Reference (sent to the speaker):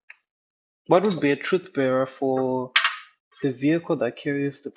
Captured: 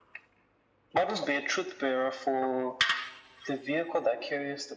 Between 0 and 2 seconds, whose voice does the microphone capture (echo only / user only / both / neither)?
echo only